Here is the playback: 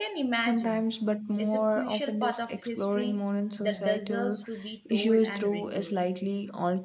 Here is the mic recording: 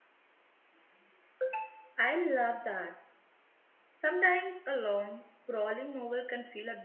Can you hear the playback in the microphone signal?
No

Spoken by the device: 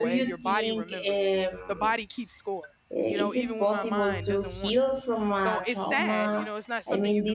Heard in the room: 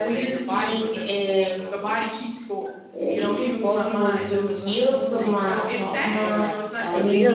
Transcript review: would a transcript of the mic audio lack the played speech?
No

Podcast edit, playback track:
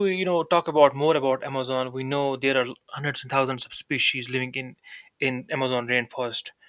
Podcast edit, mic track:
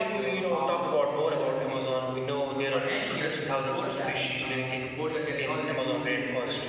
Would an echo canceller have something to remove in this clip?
Yes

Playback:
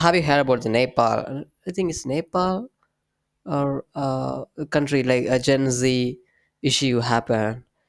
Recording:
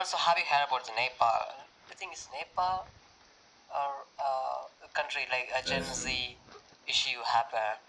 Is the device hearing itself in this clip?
Yes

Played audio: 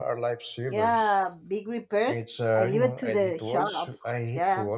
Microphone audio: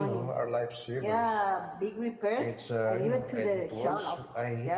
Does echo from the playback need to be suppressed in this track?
Yes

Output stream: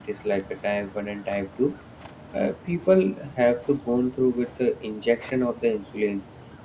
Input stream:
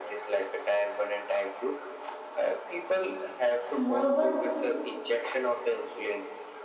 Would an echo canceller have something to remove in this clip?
Yes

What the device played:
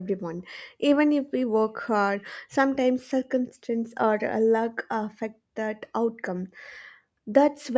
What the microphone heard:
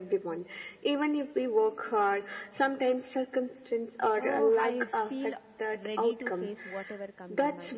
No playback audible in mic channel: No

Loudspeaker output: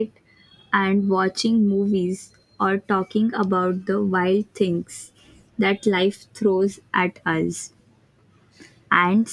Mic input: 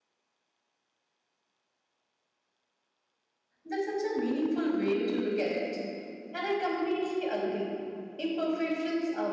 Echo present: No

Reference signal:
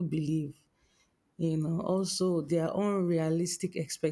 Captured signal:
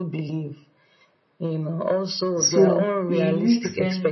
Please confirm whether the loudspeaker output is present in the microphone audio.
Yes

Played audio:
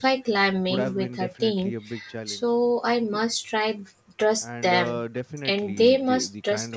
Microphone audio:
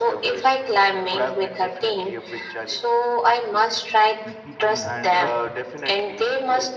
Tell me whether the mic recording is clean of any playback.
No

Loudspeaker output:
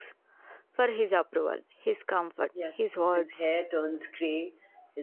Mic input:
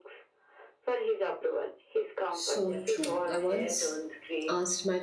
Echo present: Yes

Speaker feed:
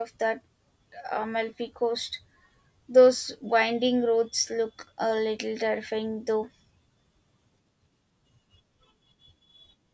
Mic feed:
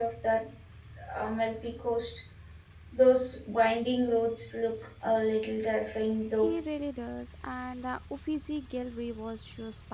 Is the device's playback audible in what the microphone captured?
Yes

